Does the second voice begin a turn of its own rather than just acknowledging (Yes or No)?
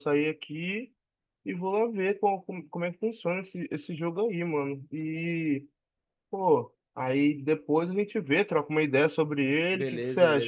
Yes